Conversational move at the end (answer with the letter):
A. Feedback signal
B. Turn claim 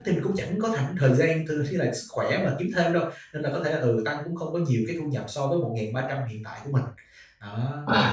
B